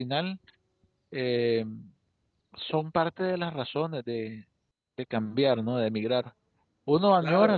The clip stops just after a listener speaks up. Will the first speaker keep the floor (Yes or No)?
Yes